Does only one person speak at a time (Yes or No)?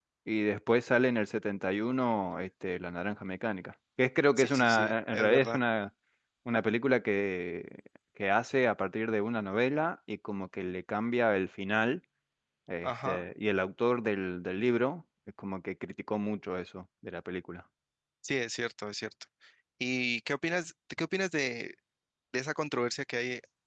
No